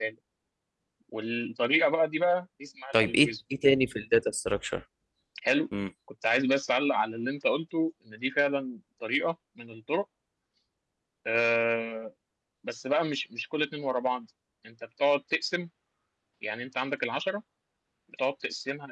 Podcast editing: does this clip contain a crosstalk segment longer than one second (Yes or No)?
No